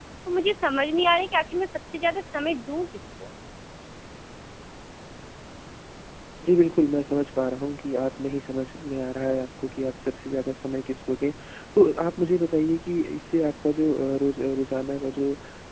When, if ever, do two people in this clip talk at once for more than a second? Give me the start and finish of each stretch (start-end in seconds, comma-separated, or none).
none